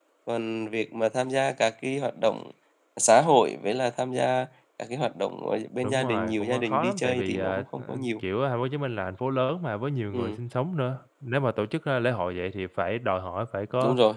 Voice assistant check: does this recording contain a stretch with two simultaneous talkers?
Yes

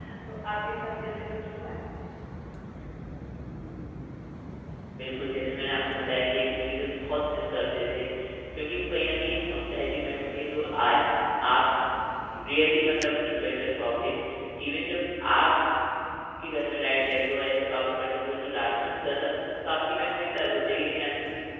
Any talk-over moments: No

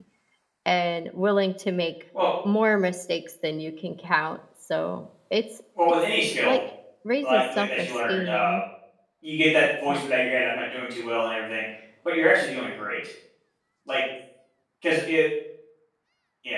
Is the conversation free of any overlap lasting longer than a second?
No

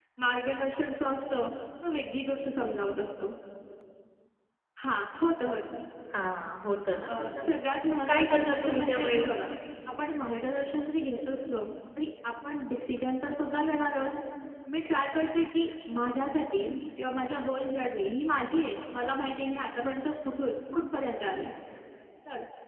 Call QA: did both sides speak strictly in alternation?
No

